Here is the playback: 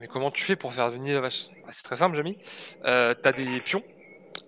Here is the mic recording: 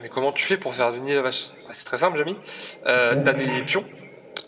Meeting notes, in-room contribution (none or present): present